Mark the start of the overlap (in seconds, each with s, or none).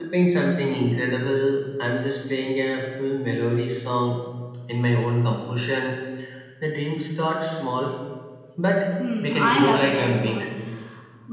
9.2 s